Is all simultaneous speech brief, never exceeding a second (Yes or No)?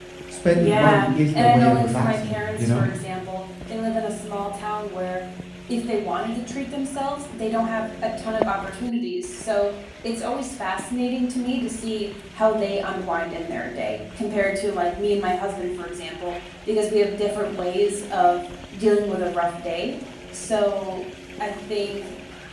No